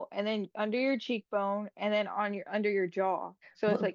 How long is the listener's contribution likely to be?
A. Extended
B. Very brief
A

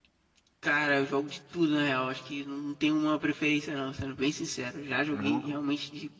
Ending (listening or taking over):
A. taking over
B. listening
B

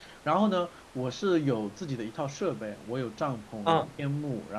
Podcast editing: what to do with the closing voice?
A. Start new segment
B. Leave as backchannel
B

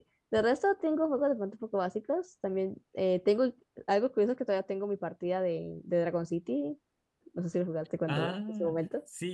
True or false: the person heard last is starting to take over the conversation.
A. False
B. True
B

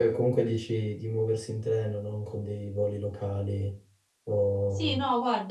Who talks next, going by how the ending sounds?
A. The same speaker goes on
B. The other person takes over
B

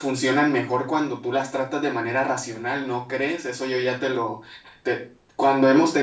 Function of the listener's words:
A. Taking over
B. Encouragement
B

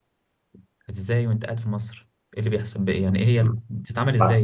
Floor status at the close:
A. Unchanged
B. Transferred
B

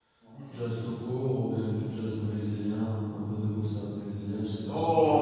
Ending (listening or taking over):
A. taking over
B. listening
A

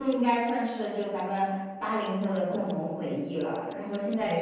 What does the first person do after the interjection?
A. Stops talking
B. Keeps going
B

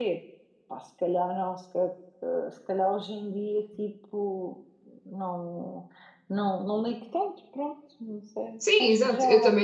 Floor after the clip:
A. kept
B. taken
B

